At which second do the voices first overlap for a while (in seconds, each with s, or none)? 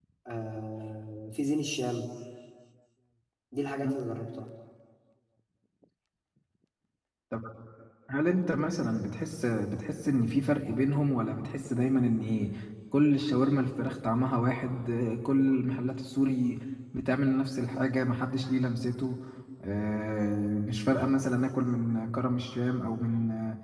none